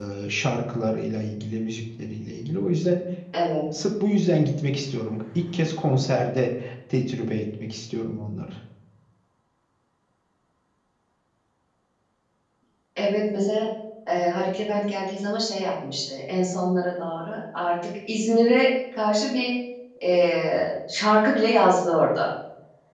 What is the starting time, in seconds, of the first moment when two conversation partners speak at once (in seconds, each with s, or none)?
none